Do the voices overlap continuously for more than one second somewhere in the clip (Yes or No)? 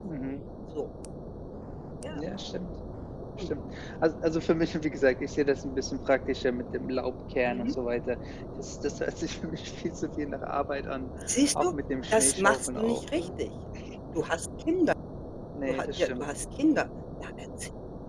Yes